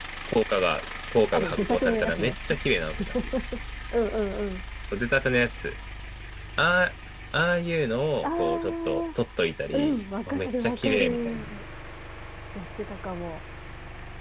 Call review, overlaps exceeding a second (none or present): present